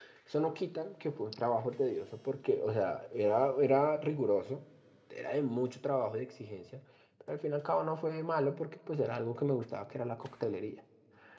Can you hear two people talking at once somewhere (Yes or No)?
No